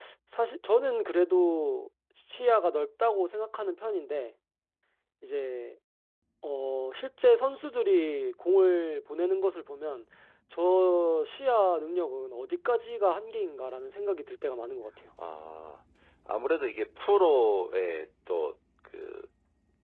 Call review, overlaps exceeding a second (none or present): none